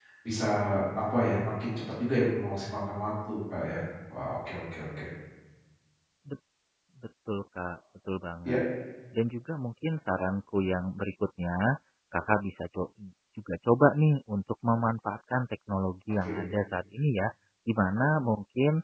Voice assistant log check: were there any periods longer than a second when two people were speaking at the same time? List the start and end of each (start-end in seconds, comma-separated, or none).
none